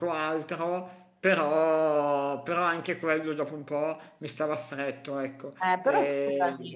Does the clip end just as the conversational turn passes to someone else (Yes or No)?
Yes